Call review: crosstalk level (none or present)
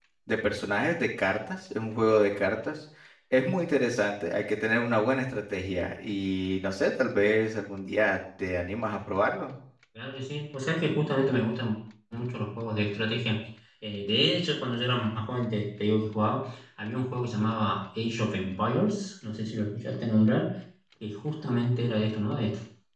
none